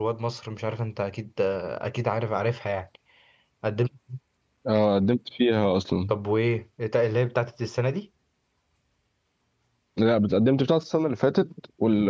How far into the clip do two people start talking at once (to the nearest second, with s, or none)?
none